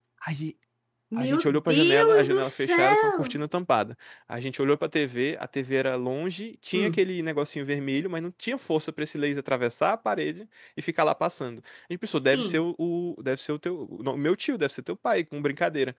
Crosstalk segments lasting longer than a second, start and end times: 1.2-3.3

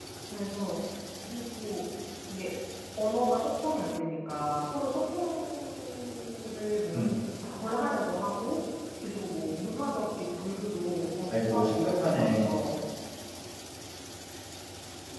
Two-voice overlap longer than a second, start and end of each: 11.3-12.6

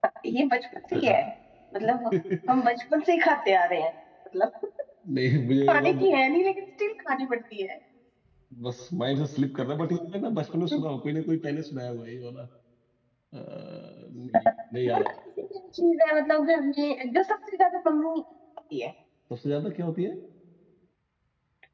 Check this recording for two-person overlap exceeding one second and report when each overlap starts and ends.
none

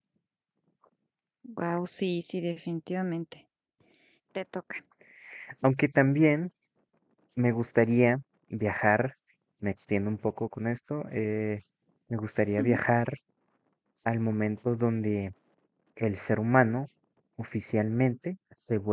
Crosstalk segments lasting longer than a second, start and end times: none

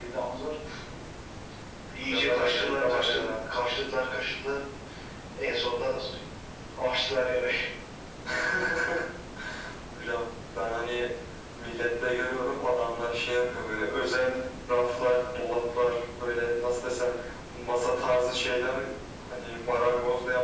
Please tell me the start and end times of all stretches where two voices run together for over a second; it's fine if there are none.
2.0-3.4

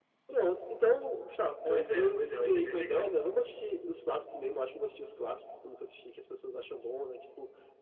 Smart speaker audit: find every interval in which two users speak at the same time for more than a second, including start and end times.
1.6-3.2

